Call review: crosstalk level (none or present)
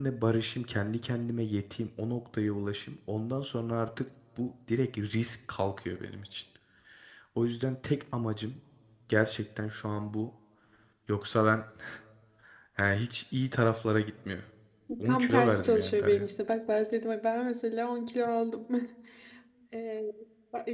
present